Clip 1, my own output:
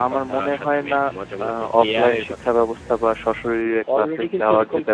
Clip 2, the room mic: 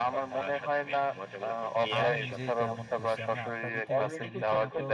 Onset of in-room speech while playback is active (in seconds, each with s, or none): 2.0 s